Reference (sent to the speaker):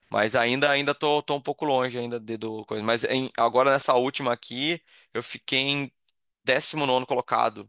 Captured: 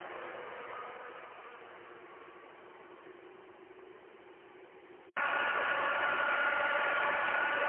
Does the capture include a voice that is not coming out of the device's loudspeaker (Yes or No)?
No